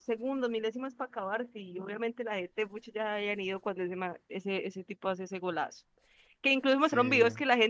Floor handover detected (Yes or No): No